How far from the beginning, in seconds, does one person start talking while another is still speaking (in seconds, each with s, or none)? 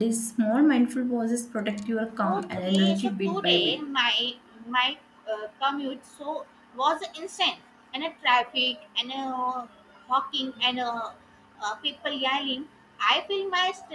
2.2 s